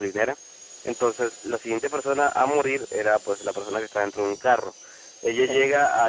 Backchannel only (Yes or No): Yes